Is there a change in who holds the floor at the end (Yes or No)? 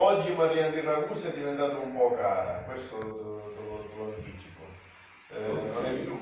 No